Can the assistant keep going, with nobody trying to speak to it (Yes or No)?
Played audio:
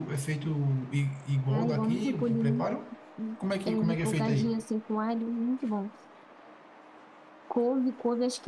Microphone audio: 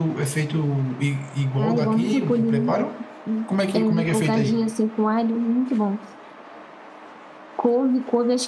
Yes